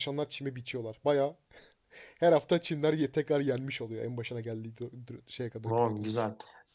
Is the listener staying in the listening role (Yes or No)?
No